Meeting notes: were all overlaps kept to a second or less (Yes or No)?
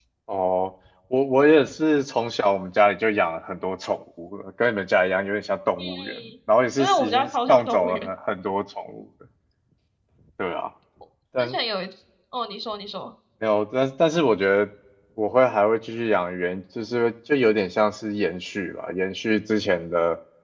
No